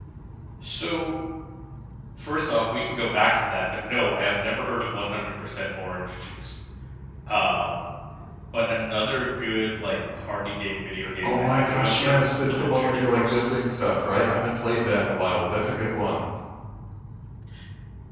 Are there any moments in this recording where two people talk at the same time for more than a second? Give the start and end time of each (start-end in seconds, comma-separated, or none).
11.2-13.4